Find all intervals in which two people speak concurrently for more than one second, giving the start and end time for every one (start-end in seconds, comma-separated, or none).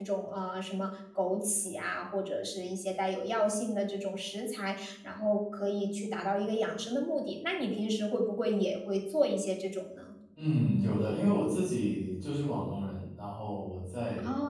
none